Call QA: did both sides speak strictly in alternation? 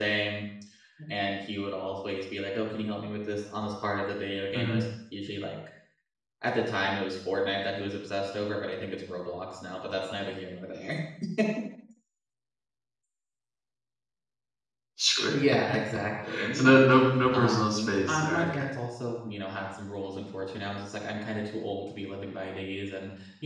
No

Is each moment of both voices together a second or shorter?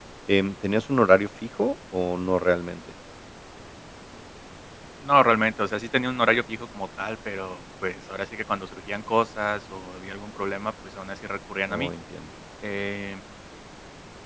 Yes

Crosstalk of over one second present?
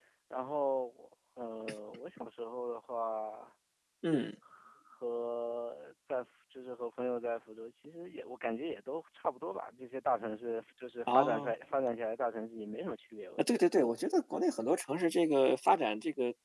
No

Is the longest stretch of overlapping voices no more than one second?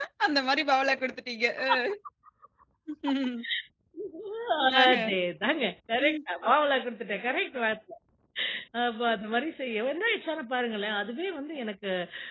Yes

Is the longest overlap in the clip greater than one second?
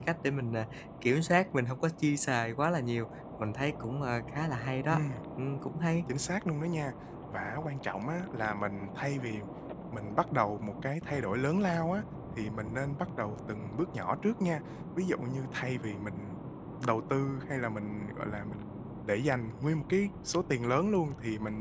No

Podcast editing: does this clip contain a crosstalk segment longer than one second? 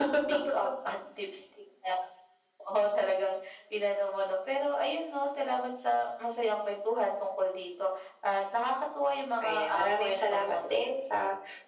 Yes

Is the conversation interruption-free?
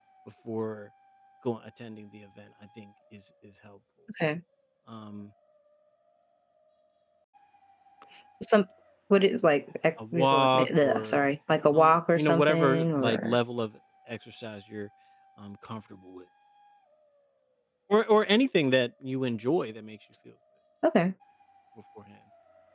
No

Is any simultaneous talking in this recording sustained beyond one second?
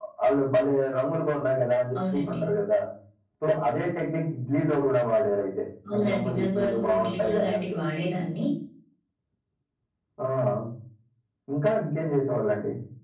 Yes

